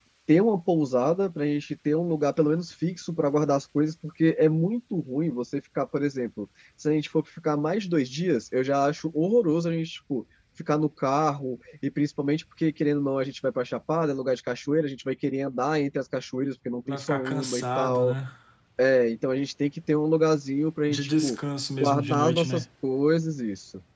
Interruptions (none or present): present